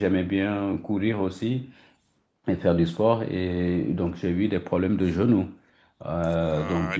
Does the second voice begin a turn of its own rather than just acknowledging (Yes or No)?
Yes